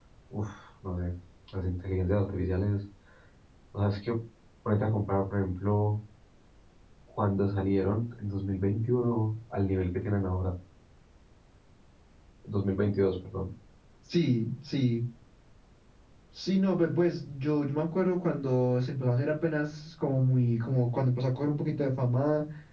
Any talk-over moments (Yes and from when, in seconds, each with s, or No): No